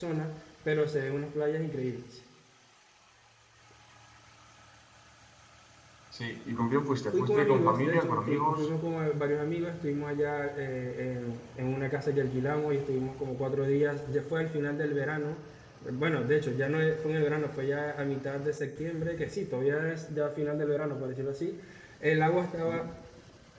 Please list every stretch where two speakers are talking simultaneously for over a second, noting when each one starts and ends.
7.1-8.7

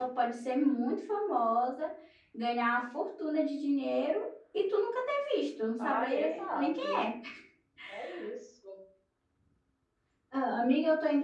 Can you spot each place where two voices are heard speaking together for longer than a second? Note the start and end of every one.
5.8-7.1

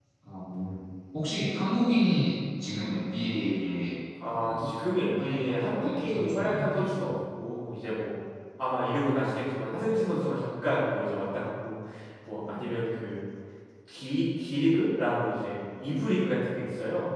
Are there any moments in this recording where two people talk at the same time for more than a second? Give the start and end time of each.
5.2-7.0

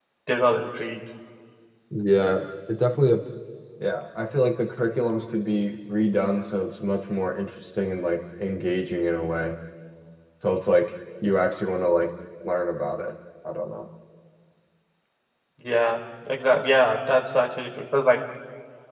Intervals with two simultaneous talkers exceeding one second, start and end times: none

